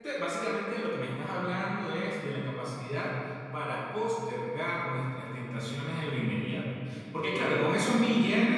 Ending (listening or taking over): listening